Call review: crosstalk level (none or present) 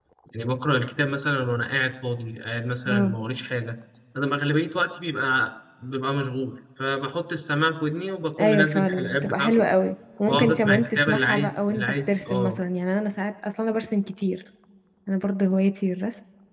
present